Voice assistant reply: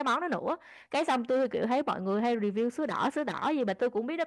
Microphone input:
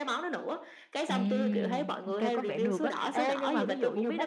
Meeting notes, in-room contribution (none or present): present